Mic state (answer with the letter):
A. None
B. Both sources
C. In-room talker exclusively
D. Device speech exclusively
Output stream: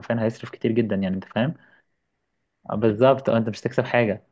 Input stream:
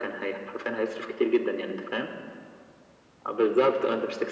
D